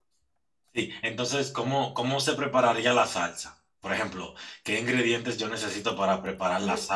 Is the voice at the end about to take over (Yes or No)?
No